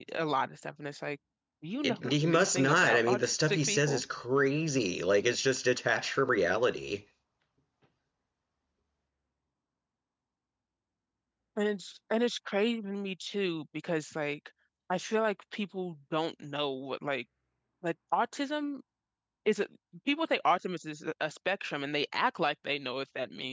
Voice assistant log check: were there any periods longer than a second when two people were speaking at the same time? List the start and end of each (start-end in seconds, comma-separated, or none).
1.8-4.0